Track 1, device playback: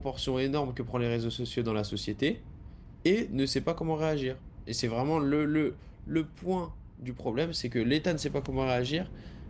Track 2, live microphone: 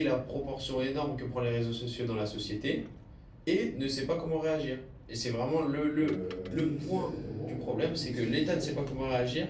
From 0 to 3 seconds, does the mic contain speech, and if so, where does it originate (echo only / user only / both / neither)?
echo only